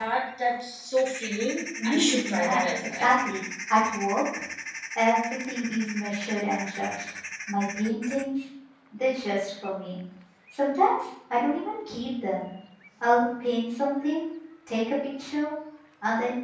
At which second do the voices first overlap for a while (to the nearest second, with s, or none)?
2 s